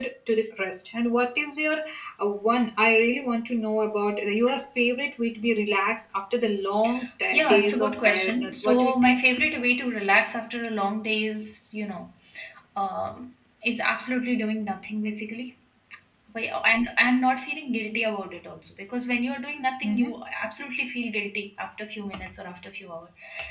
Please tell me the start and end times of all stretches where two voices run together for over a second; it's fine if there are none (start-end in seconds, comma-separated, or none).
7.3-9.2